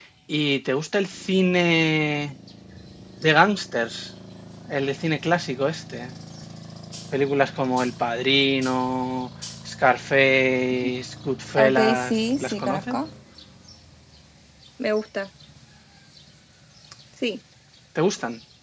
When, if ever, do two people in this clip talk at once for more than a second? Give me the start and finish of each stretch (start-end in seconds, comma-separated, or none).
11.6-13.0